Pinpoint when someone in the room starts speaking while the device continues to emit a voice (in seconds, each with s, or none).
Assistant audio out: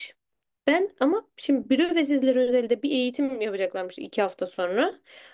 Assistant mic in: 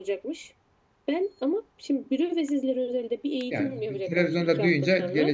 3.5 s